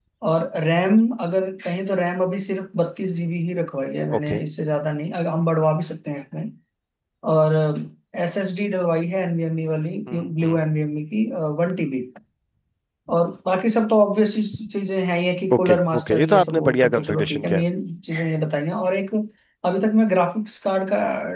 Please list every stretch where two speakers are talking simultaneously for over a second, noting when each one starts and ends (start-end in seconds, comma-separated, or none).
15.5-17.6